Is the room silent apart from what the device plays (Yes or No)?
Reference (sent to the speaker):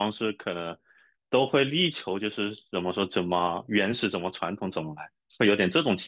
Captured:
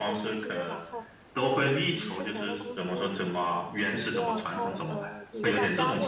No